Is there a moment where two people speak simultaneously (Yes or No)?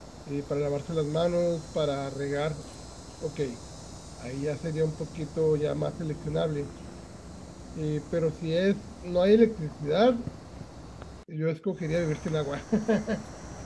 No